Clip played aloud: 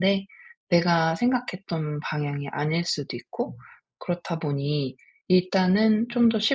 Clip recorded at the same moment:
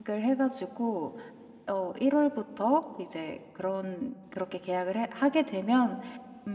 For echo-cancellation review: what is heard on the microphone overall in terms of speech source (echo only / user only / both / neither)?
user only